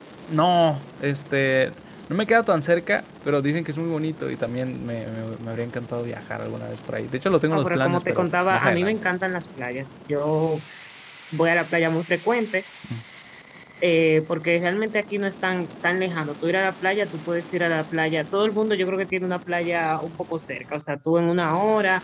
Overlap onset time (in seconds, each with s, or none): 7.5 s